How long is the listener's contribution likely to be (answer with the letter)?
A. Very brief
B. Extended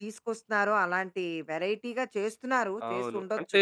B